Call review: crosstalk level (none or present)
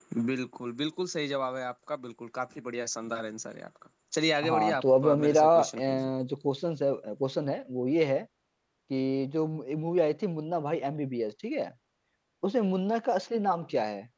present